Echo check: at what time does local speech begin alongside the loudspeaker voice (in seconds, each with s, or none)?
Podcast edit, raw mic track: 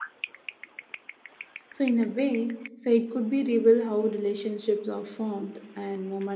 1.7 s